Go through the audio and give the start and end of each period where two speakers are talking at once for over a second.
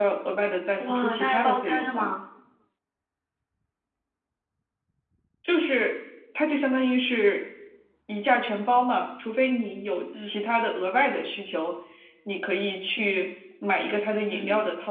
0.8-2.1

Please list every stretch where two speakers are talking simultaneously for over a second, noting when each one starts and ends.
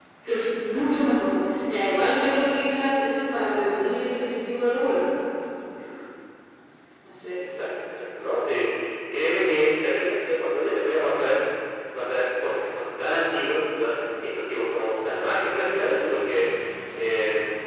none

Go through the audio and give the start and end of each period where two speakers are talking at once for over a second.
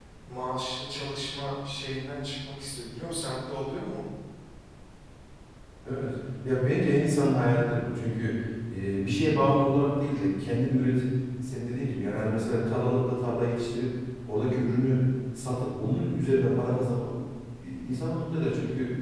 none

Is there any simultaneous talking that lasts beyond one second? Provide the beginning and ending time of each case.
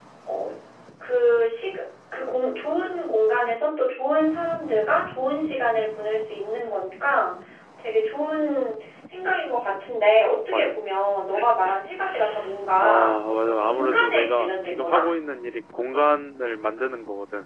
13.6-15.1

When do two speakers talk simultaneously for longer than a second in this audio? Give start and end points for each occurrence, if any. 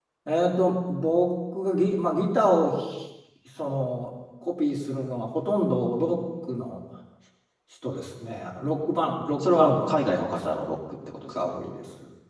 9.4-10.8

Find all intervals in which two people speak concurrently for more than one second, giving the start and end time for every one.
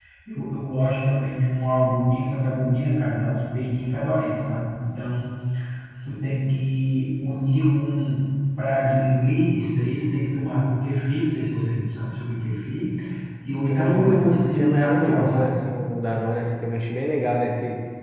13.7-15.5

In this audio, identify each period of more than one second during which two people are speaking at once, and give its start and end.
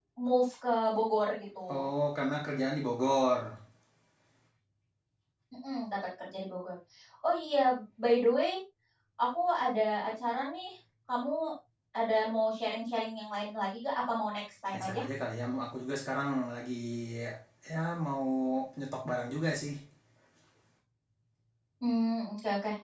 none

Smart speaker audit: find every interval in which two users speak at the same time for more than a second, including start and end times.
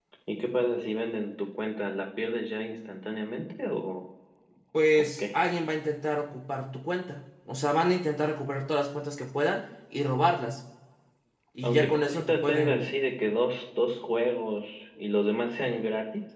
11.6-12.9

